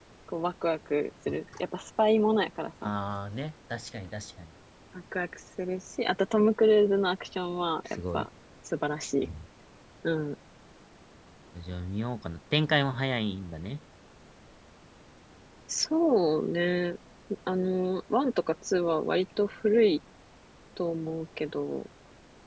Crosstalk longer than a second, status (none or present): none